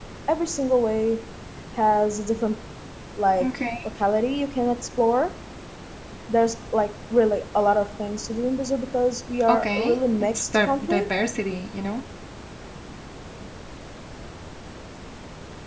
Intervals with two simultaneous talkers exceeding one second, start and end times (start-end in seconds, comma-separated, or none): 9.5-11.1